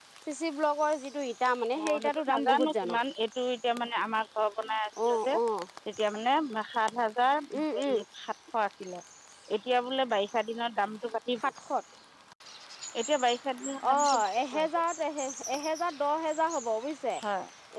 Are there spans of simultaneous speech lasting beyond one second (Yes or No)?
Yes